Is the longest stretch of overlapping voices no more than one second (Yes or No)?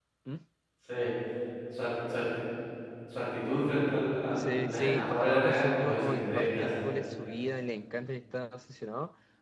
No